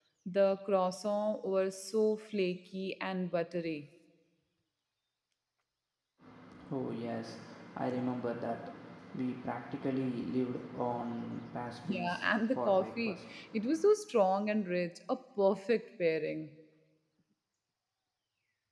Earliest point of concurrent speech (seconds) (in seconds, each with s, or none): 11.8 s